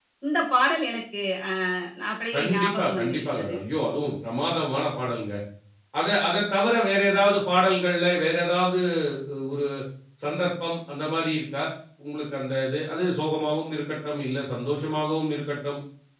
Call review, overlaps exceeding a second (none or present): present